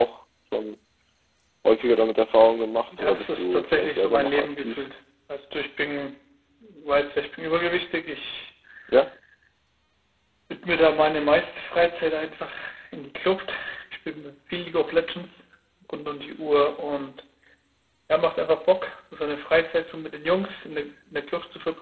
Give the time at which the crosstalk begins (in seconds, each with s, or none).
2.9 s